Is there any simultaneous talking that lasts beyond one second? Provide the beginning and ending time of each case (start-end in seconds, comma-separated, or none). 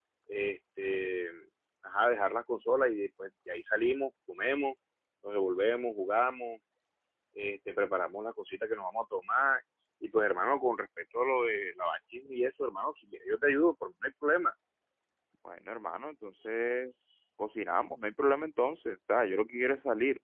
none